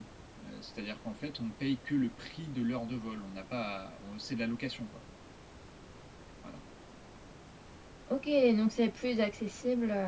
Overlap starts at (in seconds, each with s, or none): none